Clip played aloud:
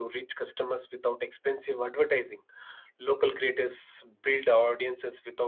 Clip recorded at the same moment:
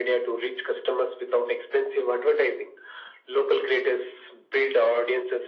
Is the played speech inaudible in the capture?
No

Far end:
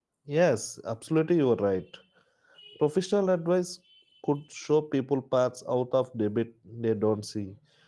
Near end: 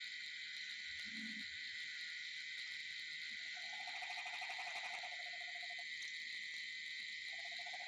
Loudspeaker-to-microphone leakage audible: No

